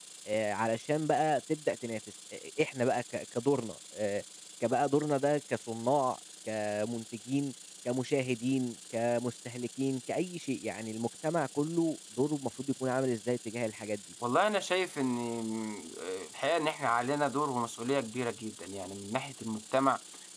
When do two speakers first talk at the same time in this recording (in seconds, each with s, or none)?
none